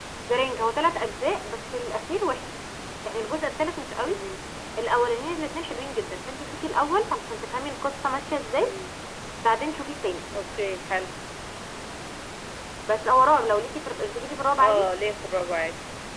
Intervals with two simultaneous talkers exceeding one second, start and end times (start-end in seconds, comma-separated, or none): none